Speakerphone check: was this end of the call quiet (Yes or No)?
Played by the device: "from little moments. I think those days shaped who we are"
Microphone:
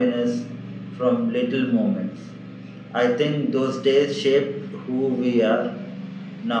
Yes